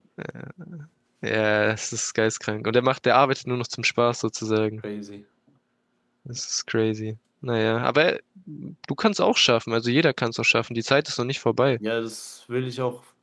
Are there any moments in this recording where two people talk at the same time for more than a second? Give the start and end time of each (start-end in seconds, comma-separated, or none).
none